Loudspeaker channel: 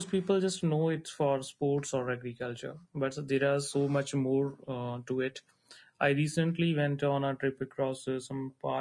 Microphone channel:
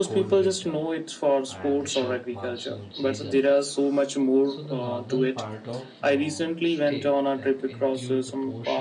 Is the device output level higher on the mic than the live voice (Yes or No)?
Yes